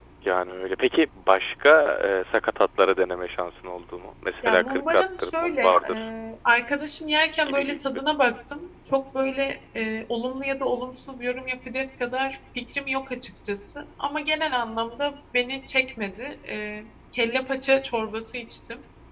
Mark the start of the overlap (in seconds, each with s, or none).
4.4 s